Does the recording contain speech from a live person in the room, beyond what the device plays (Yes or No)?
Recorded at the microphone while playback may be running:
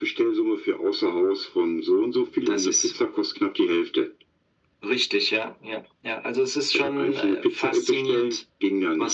No